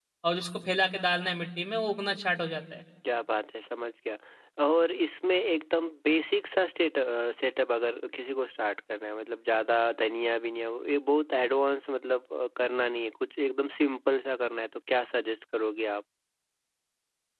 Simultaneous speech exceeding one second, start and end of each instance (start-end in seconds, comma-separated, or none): none